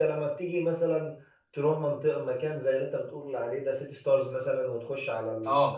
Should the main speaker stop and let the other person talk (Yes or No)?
No